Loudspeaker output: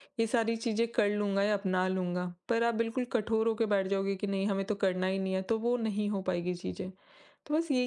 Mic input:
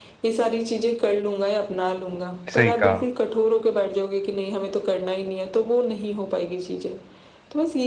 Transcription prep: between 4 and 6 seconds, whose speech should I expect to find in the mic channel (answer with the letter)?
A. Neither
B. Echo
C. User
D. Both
B